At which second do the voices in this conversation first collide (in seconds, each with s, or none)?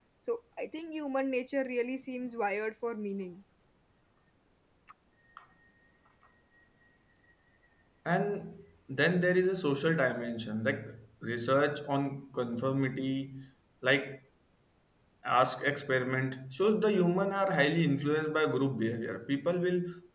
none